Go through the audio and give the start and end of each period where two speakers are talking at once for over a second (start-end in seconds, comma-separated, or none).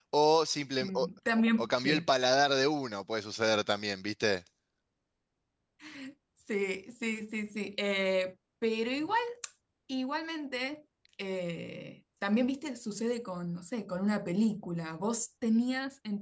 none